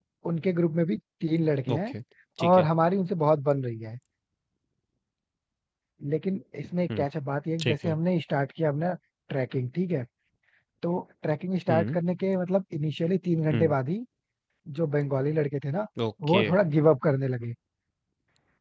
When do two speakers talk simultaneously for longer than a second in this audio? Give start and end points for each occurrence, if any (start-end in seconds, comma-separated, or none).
none